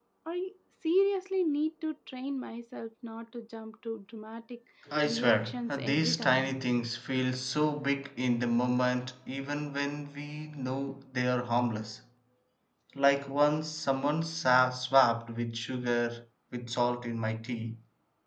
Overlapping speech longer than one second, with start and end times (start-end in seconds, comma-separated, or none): 5.0-6.5